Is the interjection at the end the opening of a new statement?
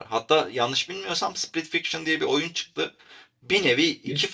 No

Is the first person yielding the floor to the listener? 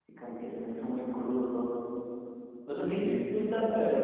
No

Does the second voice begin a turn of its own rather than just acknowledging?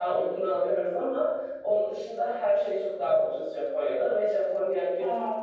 No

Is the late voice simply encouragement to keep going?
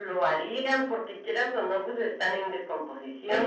Yes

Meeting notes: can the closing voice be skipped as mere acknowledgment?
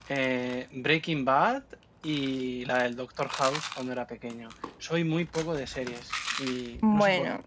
Yes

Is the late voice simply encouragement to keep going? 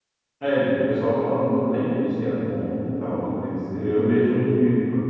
Yes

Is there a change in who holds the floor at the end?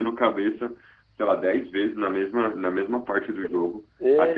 No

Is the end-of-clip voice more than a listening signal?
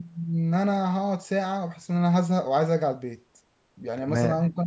No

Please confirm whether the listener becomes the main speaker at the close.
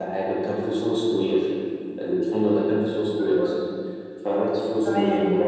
No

